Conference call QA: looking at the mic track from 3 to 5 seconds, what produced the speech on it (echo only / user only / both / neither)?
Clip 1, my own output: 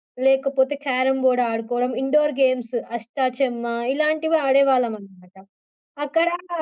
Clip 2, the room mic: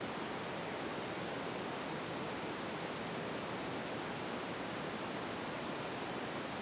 neither